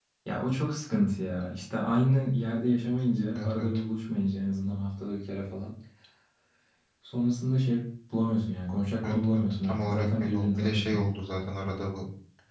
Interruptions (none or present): present